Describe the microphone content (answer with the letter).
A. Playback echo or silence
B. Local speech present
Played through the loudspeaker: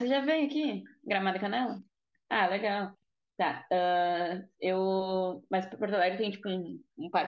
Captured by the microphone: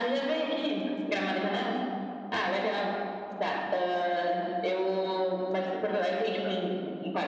A